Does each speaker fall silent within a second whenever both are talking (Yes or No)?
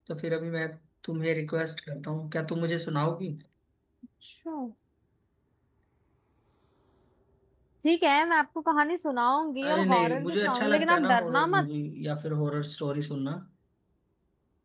No